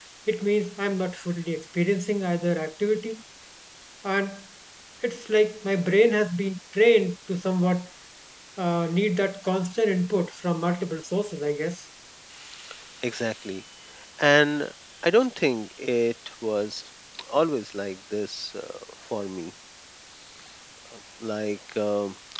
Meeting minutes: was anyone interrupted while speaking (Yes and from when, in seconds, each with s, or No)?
No